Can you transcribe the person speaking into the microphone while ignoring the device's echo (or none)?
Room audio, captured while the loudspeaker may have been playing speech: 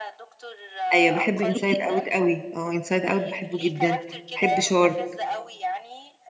ايوه بحب انسايد اوت قوي اه انسايد اوت بحبه جدا بحب شارك